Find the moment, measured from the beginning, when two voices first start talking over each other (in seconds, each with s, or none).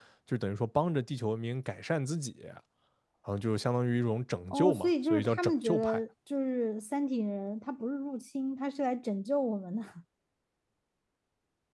4.5 s